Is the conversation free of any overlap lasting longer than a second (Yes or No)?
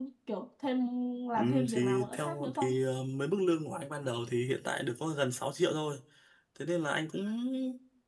No